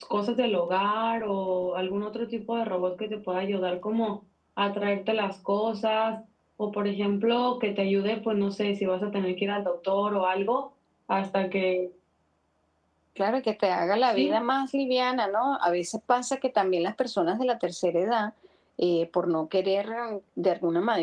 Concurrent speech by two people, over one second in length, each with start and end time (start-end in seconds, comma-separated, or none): none